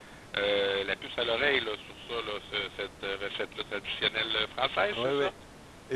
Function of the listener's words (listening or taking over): taking over